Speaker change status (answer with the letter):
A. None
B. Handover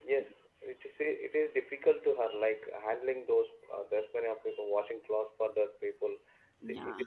B